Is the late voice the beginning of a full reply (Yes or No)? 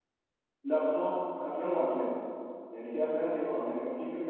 No